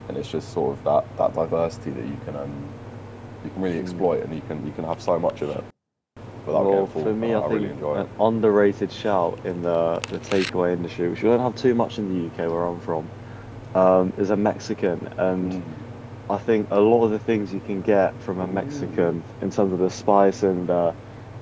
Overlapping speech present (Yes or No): Yes